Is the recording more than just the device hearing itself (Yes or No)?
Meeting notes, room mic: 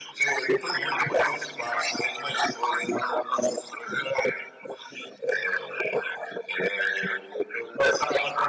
No